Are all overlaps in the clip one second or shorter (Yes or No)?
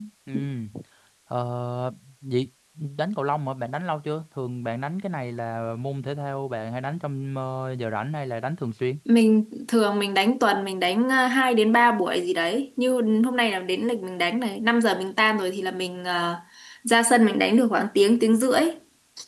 Yes